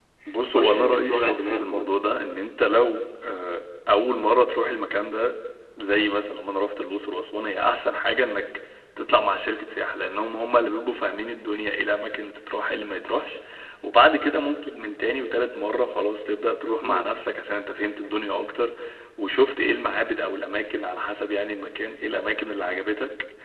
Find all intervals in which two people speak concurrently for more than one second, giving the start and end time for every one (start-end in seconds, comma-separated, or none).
0.5-2.0